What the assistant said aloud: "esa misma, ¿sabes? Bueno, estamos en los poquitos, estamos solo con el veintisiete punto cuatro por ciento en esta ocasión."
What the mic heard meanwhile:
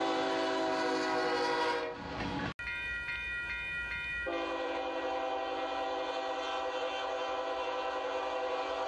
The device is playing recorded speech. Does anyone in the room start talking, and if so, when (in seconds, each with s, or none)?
none